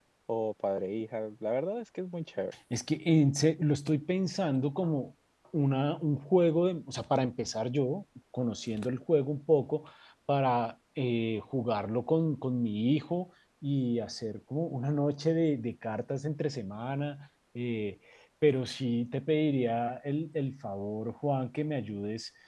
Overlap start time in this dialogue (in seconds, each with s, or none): none